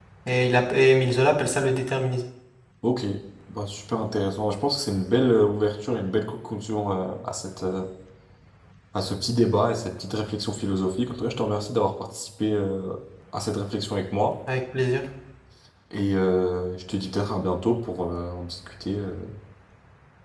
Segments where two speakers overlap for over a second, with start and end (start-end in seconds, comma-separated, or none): none